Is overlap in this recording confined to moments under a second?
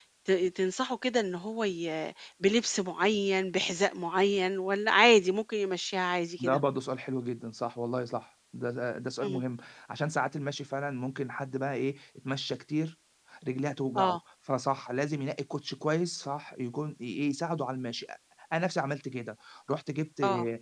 Yes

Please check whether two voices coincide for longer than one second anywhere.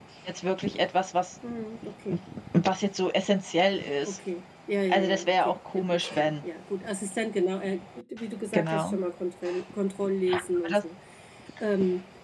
Yes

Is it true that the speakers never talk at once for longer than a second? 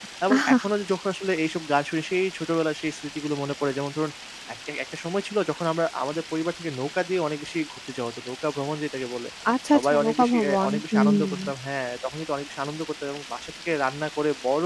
No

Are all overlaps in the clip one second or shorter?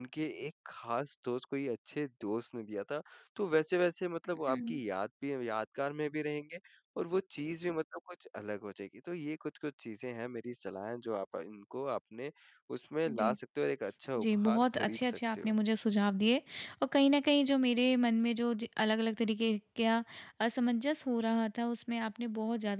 No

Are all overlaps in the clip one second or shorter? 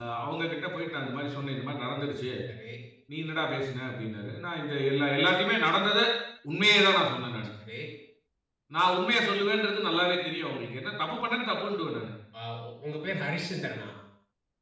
Yes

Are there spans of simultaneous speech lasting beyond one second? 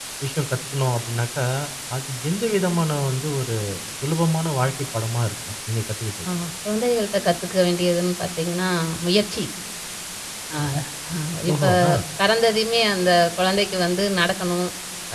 No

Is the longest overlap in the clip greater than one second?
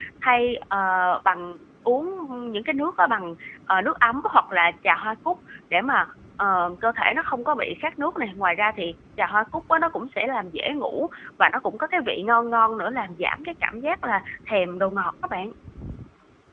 No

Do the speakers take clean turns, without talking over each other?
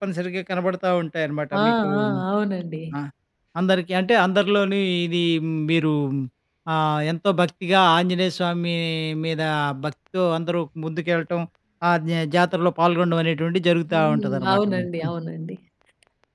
No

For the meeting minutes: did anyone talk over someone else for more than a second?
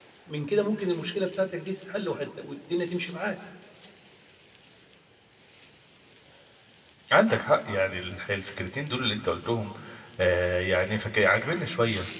No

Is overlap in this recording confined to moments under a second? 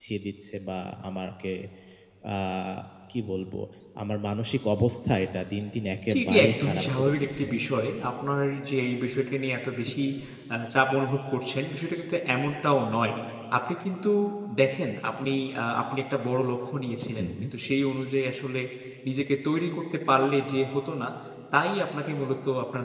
No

